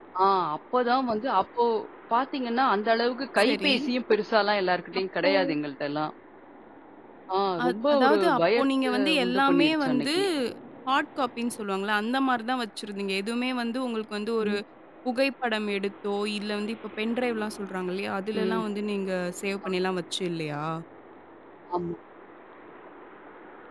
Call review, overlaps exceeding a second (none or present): present